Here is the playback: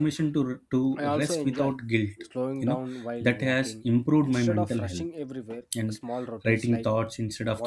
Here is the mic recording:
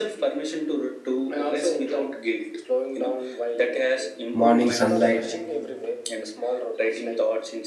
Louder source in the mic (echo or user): user